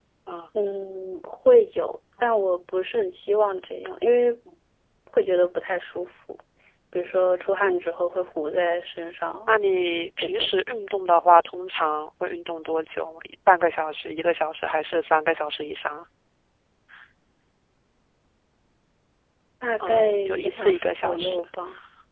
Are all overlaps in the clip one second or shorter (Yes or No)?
No